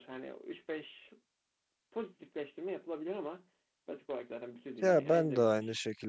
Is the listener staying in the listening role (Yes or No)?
No